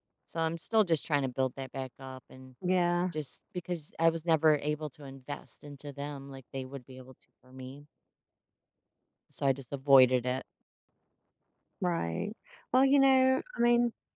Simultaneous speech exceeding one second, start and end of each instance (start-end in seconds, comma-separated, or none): none